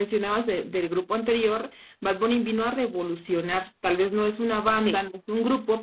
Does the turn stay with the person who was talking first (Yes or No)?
Yes